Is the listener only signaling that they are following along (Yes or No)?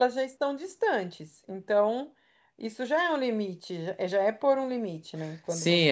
No